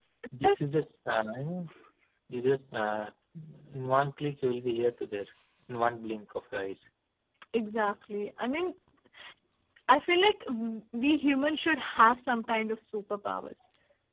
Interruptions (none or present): none